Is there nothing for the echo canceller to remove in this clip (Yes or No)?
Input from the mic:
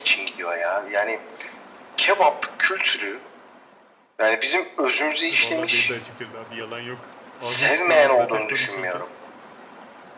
No